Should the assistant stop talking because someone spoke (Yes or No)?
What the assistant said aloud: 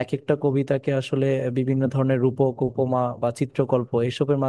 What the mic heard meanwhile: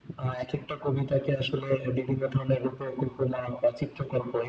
No